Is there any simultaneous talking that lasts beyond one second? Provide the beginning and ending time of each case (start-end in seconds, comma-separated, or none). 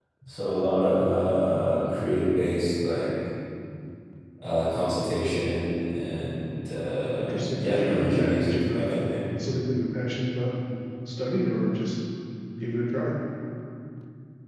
7.2-9.0